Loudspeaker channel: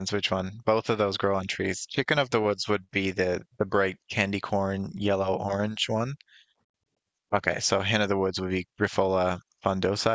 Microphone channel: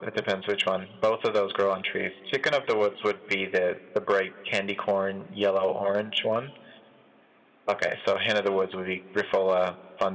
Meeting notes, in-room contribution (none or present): none